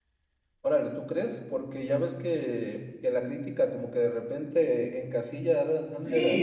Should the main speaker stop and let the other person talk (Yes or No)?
Yes